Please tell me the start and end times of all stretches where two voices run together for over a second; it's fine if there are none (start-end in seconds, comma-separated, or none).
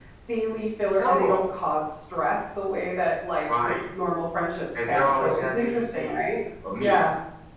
4.9-6.2